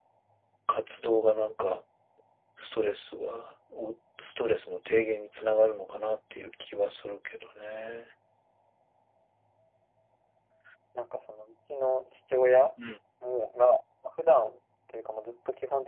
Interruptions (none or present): none